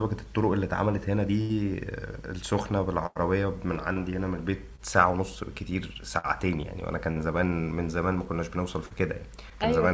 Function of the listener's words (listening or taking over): listening